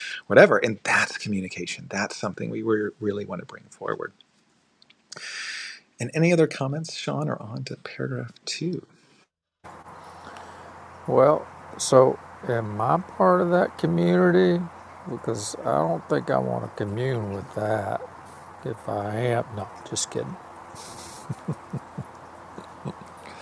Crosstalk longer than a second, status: none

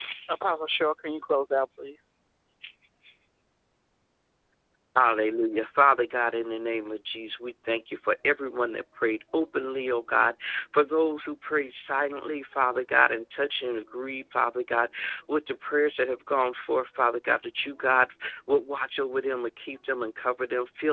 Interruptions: none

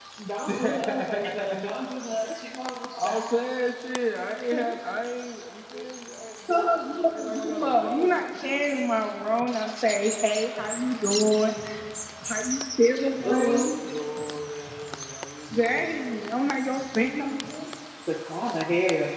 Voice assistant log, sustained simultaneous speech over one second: present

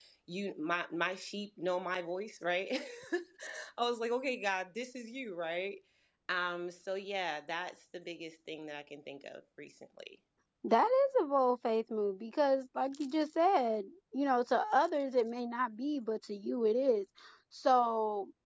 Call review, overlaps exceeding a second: none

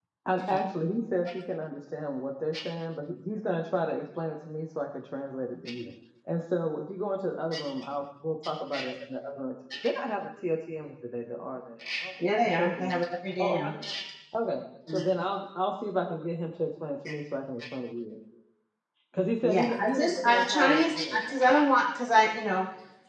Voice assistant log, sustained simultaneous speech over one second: present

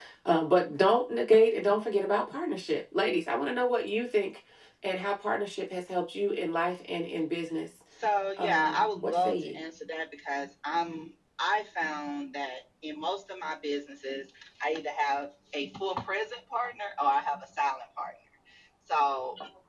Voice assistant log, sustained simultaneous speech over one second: present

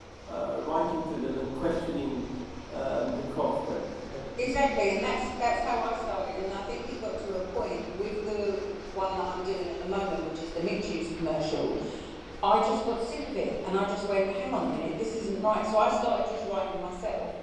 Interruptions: none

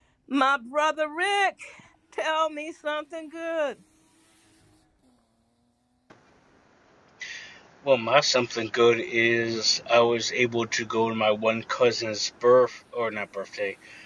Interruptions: none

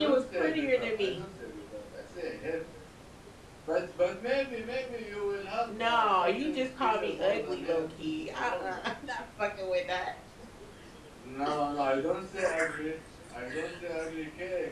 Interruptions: present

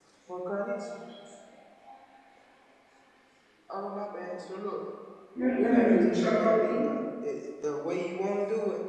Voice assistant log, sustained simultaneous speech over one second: present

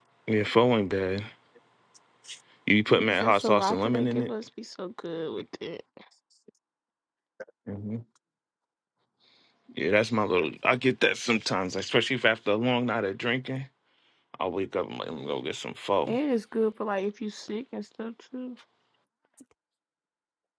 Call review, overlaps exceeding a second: present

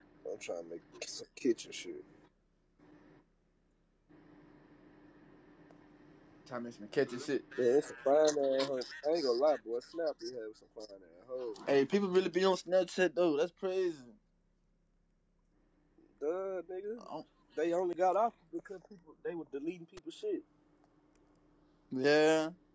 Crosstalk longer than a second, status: none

